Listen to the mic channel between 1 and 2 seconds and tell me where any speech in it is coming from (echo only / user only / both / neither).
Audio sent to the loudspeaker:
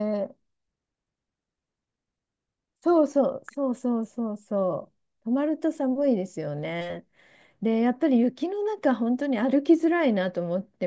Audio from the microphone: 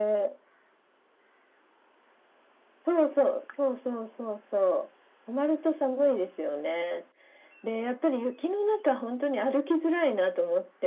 neither